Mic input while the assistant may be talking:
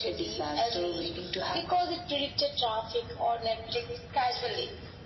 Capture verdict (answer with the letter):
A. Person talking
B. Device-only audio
B